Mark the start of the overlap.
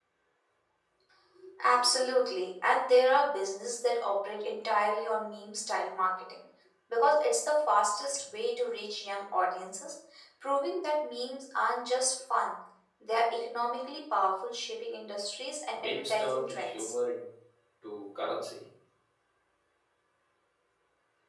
15.7 s

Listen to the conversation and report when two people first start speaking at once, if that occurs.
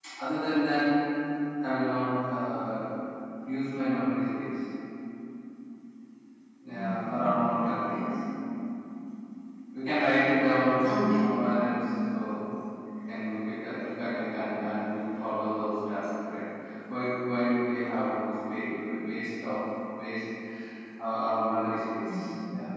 6.7 s

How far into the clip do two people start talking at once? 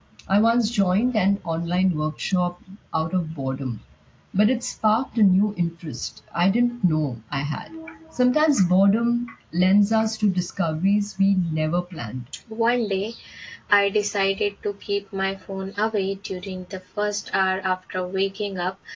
none

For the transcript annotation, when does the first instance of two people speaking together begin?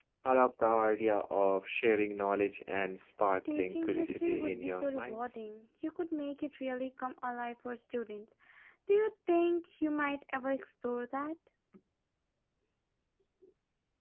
3.4 s

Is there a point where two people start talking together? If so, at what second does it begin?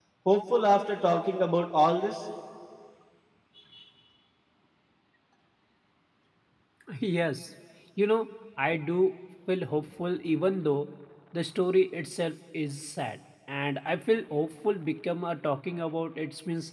none

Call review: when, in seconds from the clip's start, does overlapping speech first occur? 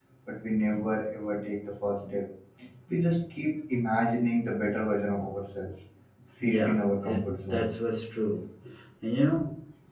6.4 s

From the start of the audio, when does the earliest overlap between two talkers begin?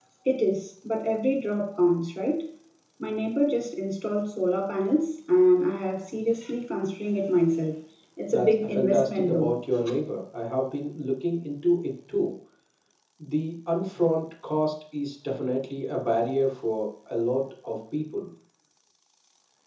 8.3 s

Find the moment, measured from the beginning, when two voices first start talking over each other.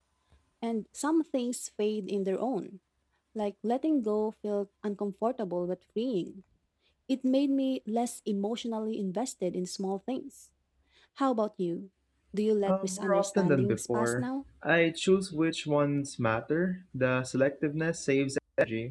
12.6 s

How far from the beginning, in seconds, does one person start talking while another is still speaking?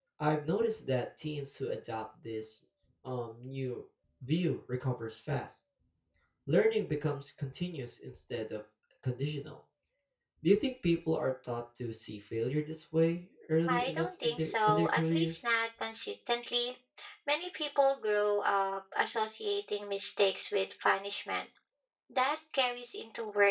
13.7 s

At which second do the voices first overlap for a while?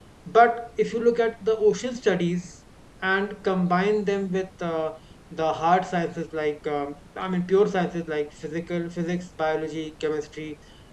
none

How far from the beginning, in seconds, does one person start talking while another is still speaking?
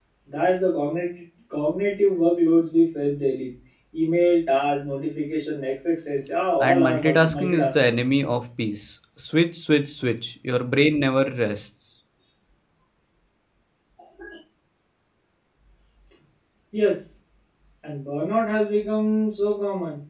6.6 s

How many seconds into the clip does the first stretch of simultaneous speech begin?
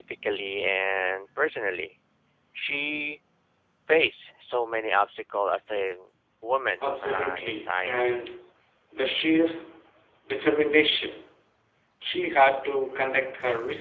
7.0 s

